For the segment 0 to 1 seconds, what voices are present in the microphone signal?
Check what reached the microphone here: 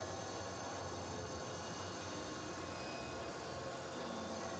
neither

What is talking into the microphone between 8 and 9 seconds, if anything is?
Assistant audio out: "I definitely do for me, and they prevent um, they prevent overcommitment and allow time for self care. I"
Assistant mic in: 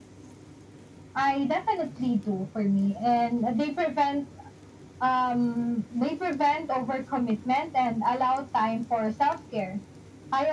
echo only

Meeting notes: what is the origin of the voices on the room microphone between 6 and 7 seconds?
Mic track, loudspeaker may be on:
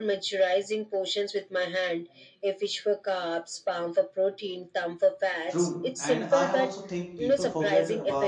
both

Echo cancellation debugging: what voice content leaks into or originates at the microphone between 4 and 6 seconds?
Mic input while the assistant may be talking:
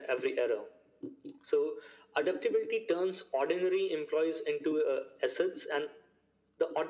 echo only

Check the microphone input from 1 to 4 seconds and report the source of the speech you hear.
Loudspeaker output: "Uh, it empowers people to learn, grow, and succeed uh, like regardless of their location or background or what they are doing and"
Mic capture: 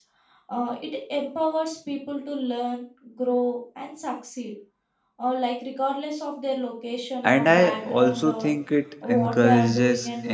echo only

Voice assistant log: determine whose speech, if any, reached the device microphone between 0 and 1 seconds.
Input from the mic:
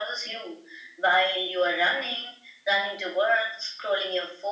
echo only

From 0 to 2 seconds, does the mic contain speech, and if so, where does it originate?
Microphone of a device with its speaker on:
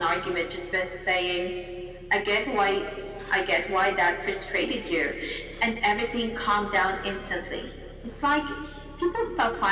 echo only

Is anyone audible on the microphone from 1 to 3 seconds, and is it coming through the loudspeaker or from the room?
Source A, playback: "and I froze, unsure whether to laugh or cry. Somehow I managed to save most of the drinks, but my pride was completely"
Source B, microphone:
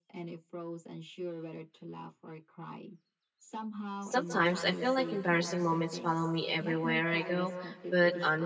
echo only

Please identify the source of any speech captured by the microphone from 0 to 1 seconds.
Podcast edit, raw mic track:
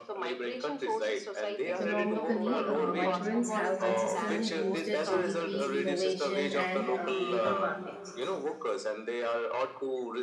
echo only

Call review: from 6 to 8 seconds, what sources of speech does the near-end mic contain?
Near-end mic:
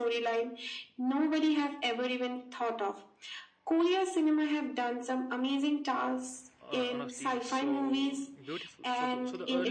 both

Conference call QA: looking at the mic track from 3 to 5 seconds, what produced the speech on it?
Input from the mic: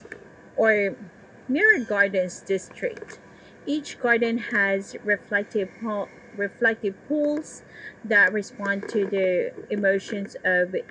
echo only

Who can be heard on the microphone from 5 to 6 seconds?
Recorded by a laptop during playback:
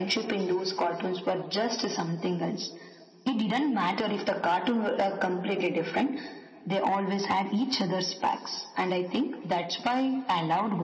echo only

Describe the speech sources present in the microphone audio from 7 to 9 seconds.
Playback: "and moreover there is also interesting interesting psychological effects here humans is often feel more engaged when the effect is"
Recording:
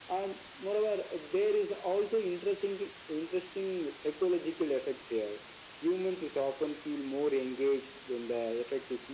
echo only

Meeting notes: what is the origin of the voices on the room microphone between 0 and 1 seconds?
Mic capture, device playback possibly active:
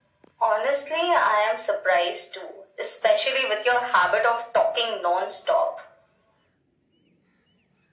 echo only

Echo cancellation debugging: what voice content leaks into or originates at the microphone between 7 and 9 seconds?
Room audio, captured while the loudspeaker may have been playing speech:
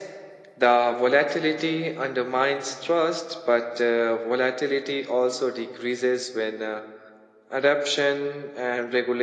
echo only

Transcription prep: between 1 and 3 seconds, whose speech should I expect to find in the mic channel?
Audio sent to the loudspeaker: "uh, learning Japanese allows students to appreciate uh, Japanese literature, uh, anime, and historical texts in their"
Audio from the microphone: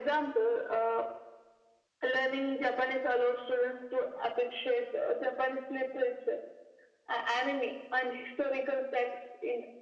echo only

